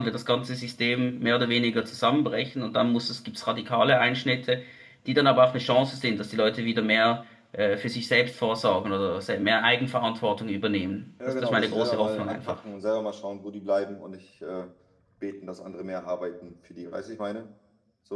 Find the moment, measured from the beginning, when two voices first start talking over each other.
11.2 s

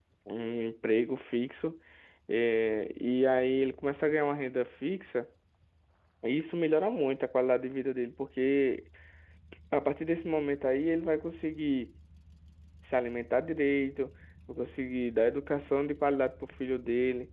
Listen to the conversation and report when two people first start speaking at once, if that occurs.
none

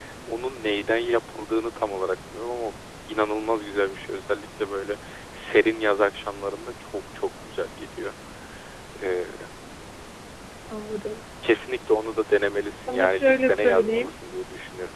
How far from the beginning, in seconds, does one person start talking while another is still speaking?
12.9 s

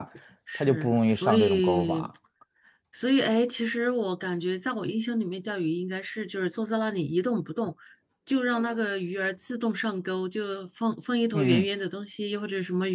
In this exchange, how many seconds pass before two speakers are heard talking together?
0.6 s

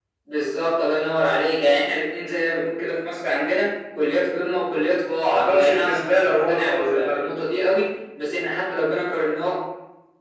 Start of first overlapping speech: 5.3 s

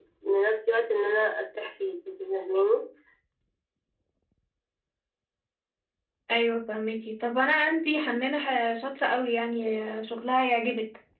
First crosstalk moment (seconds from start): none

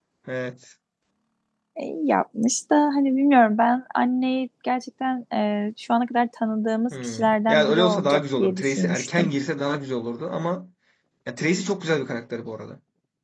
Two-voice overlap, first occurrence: 6.9 s

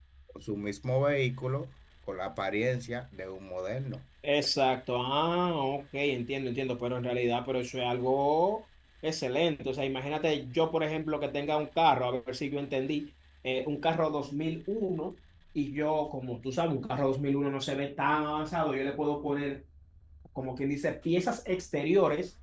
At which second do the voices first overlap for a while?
none

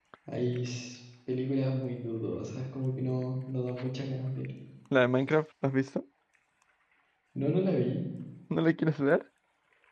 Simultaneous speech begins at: none

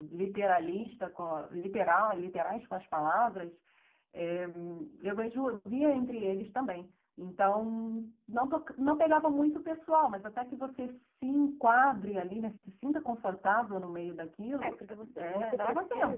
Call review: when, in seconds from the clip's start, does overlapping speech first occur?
14.6 s

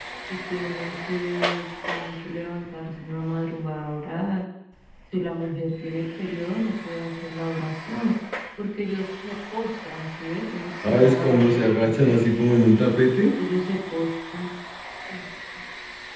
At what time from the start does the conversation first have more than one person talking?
10.8 s

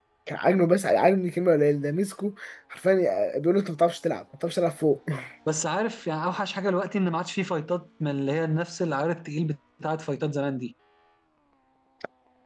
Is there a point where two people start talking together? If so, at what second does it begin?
none

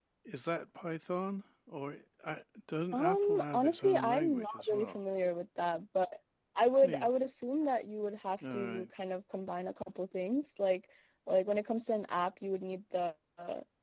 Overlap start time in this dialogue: 2.9 s

